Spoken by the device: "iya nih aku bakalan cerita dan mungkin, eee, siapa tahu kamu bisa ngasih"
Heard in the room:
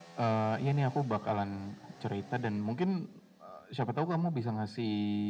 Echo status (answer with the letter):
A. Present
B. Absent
A